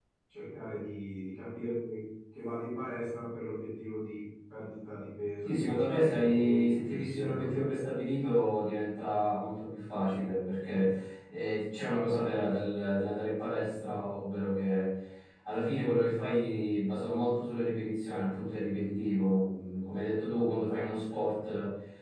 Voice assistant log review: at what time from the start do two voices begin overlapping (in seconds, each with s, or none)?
5.4 s